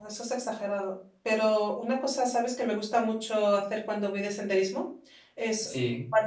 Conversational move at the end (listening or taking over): listening